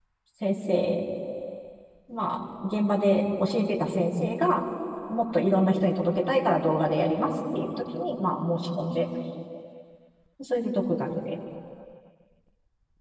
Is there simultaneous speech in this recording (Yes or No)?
No